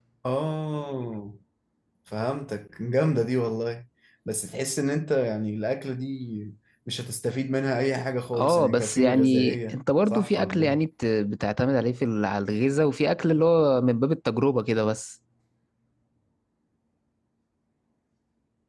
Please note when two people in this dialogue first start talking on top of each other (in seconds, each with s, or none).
8.3 s